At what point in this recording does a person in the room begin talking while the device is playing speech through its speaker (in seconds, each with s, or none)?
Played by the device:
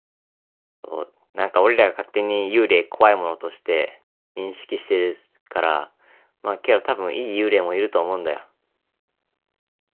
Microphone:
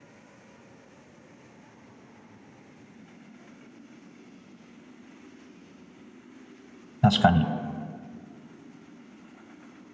7.0 s